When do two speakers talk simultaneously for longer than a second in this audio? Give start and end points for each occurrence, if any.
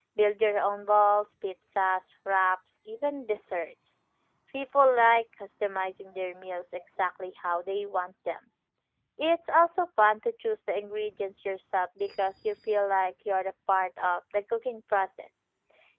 none

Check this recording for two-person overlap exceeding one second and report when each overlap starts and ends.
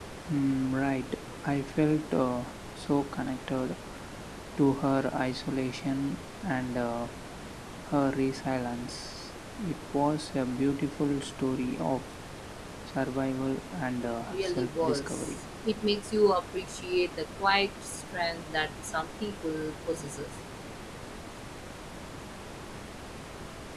14.0-15.3

